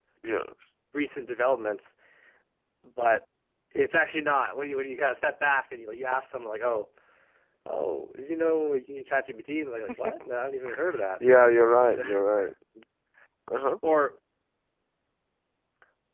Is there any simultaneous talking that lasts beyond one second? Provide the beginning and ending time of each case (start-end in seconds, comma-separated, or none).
none